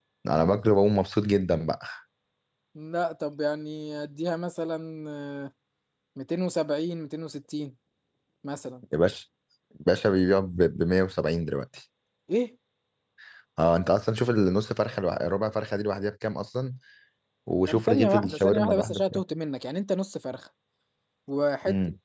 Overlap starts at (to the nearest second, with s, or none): 18 s